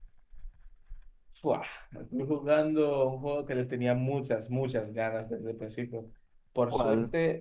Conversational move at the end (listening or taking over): listening